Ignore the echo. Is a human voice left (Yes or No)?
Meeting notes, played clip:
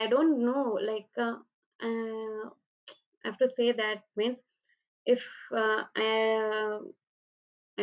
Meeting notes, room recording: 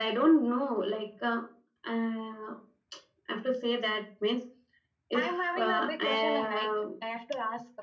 Yes